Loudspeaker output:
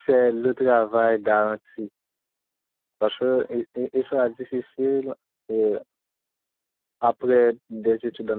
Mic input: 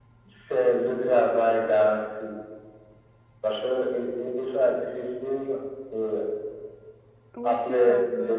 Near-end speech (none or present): present